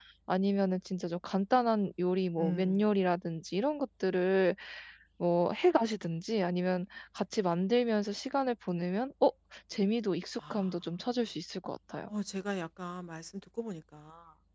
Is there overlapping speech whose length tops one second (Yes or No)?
No